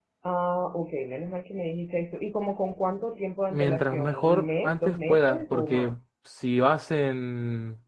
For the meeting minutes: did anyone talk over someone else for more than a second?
Yes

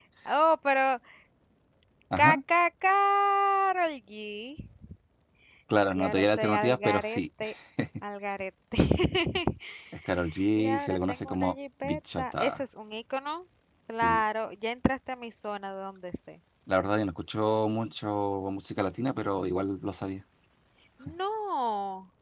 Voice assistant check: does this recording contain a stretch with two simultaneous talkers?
Yes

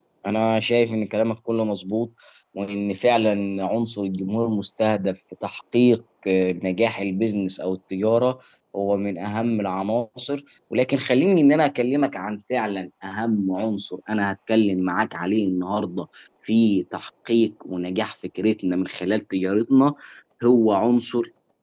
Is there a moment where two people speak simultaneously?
No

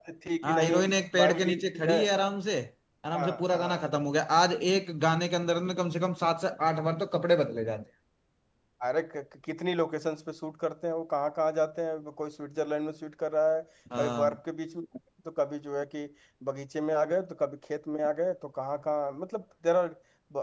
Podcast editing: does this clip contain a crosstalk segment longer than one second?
Yes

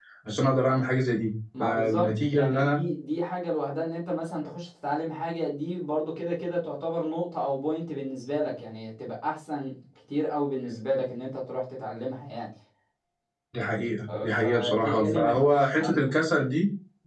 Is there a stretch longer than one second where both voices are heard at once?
Yes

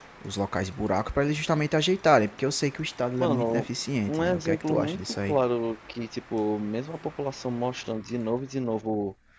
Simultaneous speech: Yes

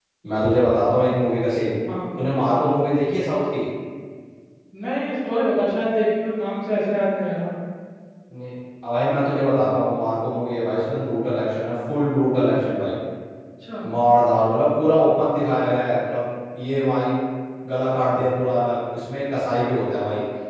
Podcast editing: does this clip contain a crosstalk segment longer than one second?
No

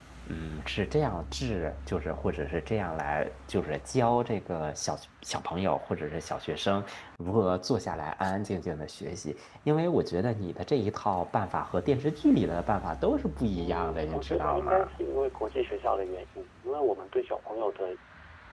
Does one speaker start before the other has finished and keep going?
Yes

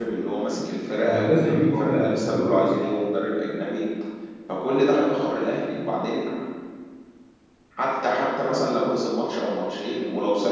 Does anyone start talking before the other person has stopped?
Yes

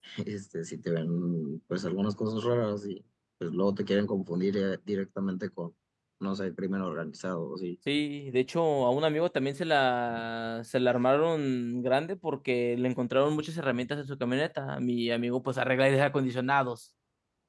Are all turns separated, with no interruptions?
Yes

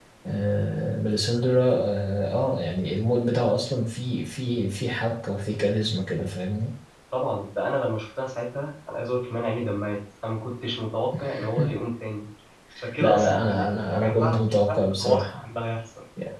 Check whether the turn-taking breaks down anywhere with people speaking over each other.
Yes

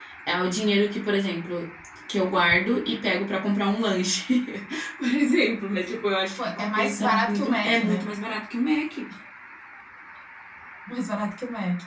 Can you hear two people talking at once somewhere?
Yes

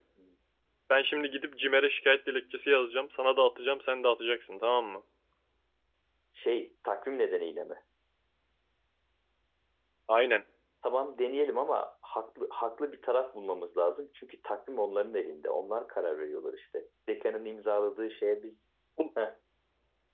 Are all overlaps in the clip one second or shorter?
Yes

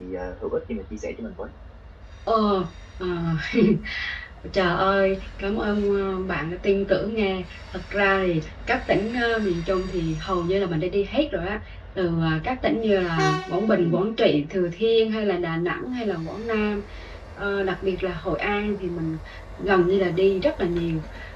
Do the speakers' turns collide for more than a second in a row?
No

